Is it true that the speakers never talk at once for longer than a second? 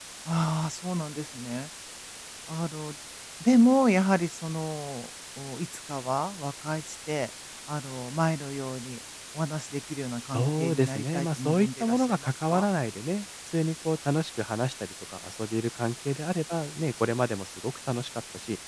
No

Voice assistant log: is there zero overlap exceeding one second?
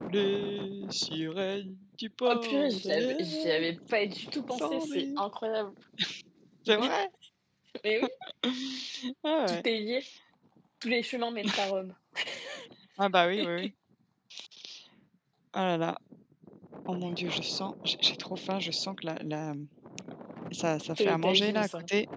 No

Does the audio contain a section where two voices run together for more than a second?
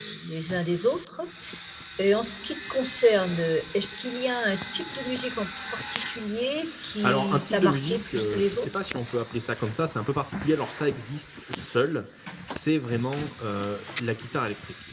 Yes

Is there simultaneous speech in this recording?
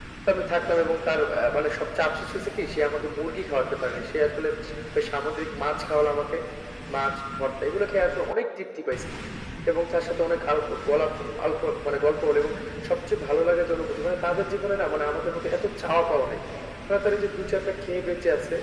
No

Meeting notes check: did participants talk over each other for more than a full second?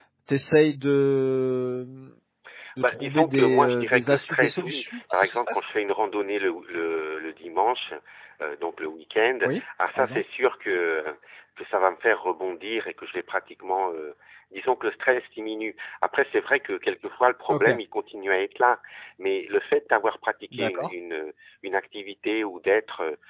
Yes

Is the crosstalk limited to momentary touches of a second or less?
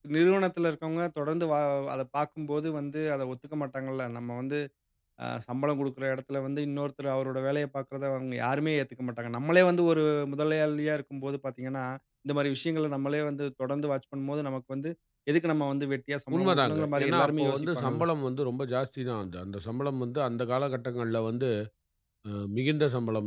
No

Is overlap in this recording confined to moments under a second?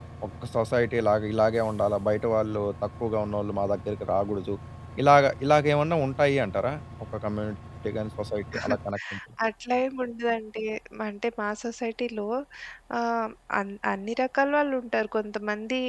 Yes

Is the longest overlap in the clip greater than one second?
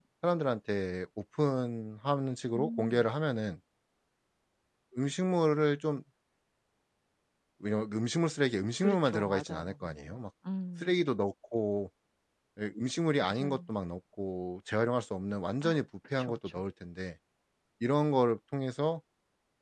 Yes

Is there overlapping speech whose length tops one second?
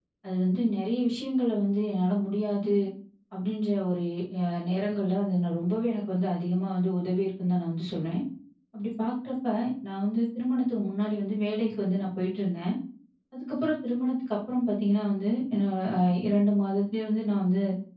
No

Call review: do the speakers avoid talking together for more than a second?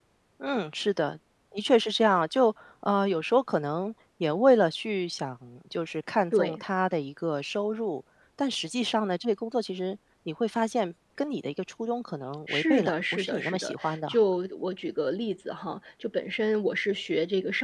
No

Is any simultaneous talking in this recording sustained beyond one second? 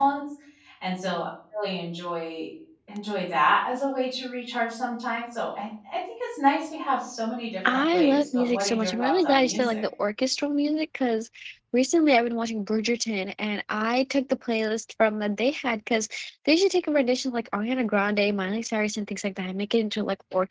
Yes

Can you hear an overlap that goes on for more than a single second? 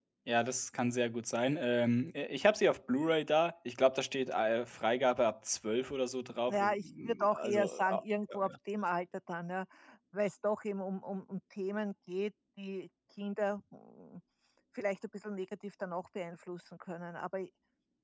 Yes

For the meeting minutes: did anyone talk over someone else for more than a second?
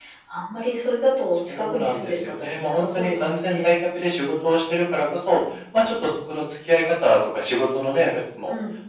Yes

